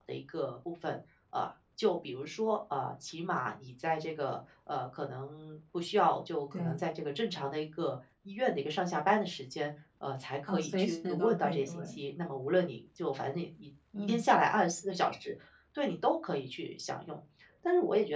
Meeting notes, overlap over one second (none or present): present